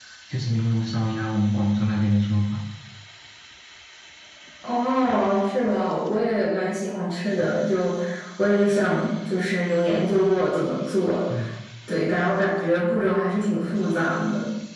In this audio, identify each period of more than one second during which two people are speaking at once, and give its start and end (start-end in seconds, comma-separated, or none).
none